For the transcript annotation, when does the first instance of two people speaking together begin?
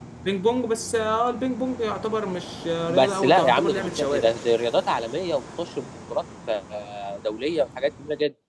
2.9 s

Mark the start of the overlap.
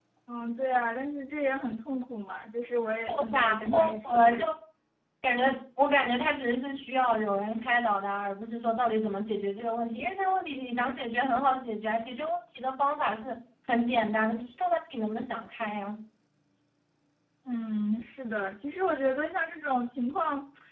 3.1 s

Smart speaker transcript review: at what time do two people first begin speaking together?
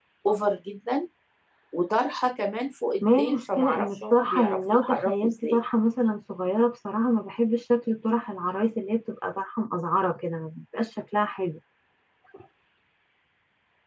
3.0 s

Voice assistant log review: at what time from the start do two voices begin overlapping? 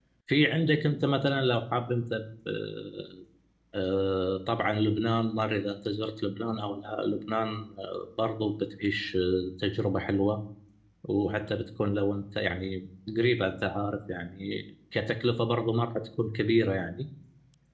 none

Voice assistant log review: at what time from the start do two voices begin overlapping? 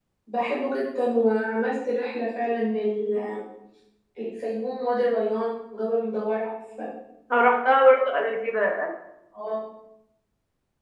none

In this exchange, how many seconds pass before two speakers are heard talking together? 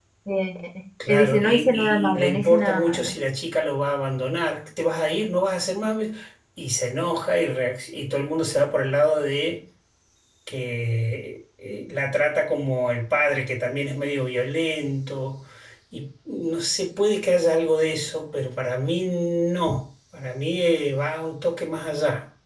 1.1 s

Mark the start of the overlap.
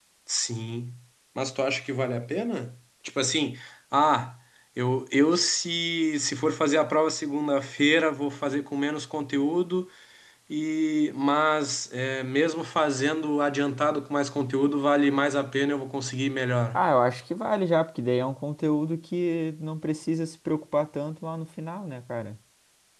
none

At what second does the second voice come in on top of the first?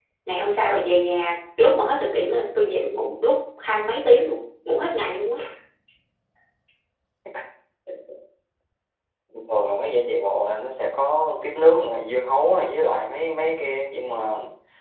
none

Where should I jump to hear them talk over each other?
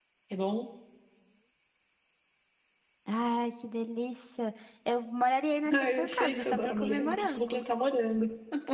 5.7 s

